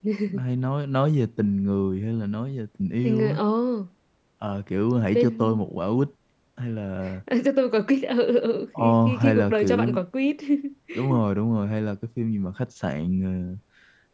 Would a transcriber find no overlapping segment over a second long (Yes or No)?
No